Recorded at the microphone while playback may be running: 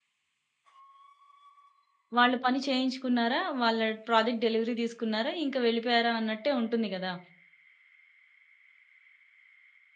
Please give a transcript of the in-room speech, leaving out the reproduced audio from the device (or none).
వాళ్ళు పని చేయించుకున్నారా, వాళ్ళ ప్రాజెక్ట్ డెలివరీ తీసుకున్నారా, ఇంక వెళ్ళిపోయారా అన్నట్టే ఉంటుంది గదా!